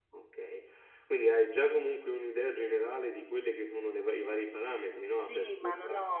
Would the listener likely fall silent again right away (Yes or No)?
No